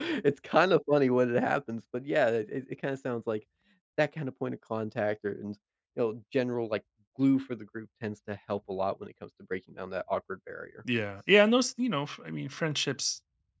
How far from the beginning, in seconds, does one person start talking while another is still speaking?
none

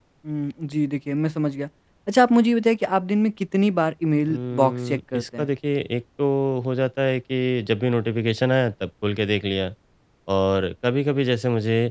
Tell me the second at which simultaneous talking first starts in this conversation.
4.2 s

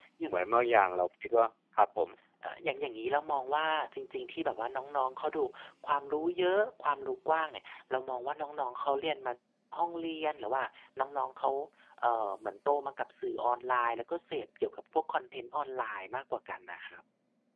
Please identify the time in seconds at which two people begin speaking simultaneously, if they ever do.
none

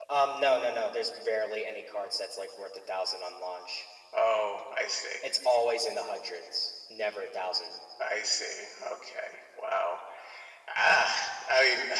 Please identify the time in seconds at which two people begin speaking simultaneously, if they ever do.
none

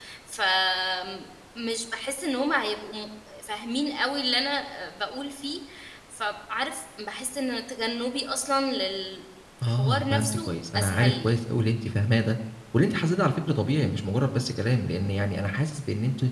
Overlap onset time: 9.6 s

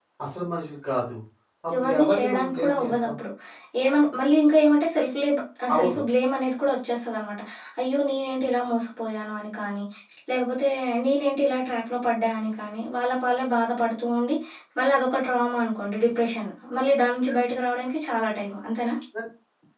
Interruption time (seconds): 1.8 s

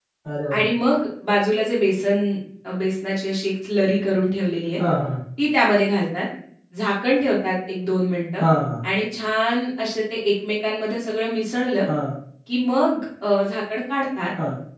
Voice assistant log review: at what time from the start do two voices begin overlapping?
none

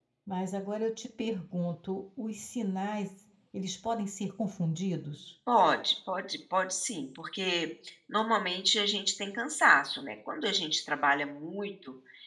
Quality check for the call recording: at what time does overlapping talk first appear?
none

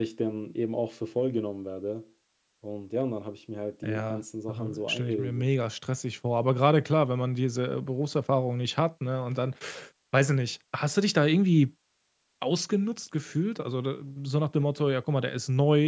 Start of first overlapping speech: 3.8 s

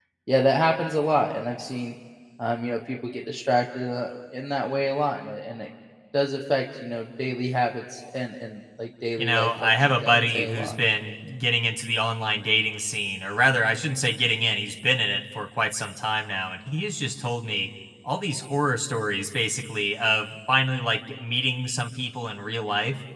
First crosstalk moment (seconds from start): 9.2 s

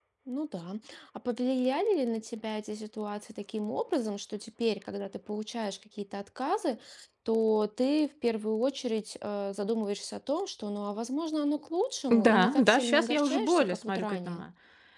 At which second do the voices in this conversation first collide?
12.1 s

